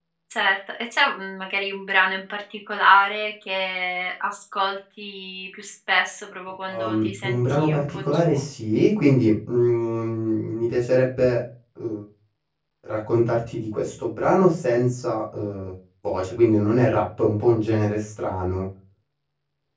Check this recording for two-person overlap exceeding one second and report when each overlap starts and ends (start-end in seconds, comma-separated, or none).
6.7-8.4